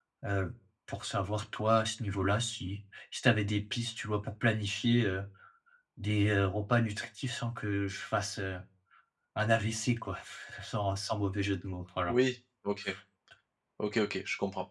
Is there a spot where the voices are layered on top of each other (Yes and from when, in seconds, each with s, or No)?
No